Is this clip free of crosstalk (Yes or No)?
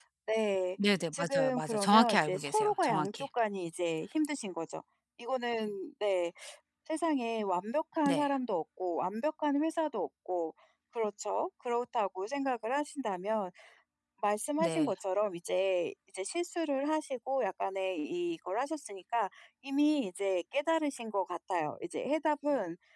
No